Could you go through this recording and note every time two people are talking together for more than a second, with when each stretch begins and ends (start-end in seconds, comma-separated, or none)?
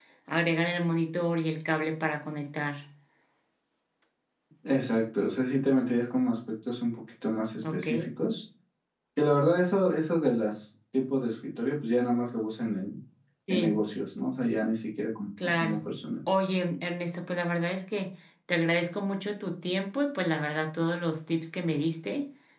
none